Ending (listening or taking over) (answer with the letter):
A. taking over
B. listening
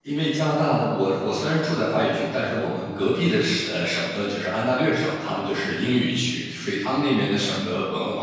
B